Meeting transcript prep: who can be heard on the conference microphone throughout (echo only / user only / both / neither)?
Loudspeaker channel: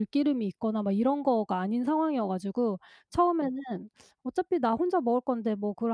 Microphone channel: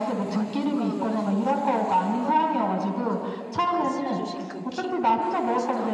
both